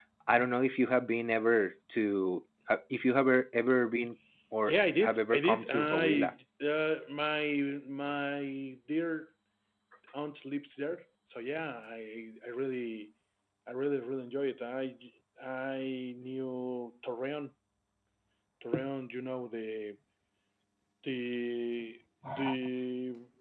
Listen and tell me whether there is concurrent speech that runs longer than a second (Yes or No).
Yes